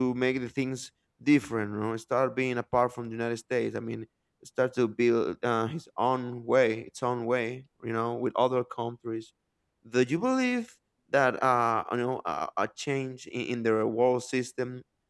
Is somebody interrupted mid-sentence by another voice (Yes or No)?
No